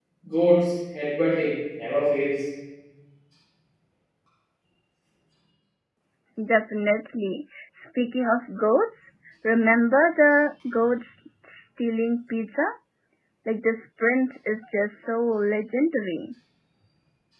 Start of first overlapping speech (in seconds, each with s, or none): none